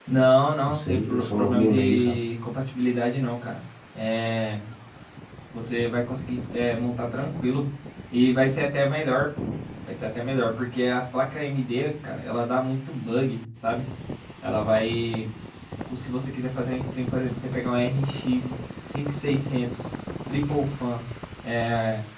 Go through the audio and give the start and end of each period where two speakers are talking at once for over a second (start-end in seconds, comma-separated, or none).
0.7-2.2